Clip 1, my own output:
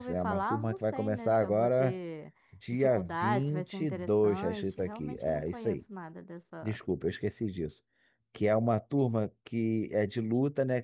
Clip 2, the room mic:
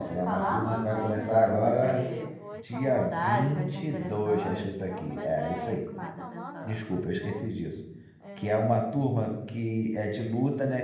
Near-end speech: present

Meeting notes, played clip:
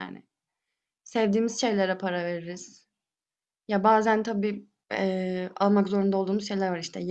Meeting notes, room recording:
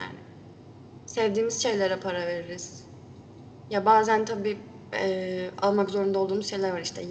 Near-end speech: none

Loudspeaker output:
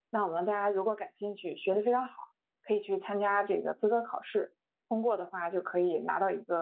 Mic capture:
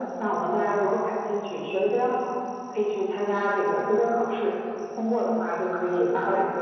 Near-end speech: none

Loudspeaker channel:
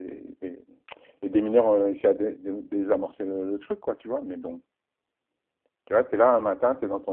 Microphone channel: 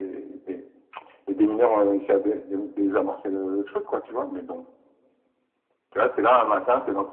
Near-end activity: none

